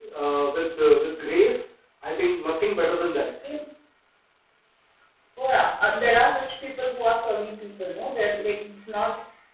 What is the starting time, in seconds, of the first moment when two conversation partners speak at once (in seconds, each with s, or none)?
none